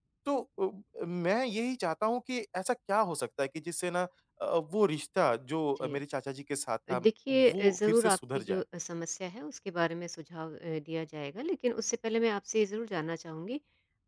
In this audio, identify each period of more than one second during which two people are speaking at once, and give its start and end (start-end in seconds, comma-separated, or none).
6.9-8.6